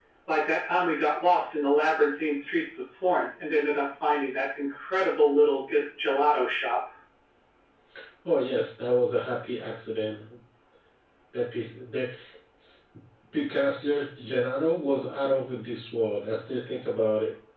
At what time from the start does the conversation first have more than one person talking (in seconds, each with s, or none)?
none